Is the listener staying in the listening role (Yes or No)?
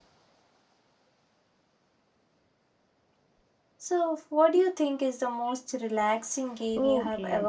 No